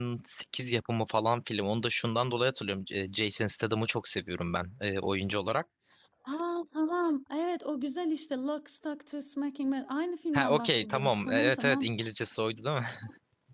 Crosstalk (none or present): present